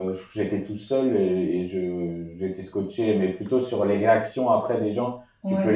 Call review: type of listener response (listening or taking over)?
listening